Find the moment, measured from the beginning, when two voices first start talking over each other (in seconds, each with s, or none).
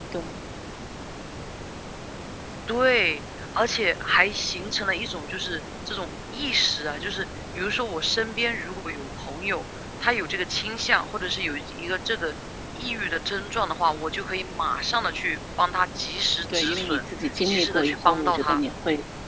16.5 s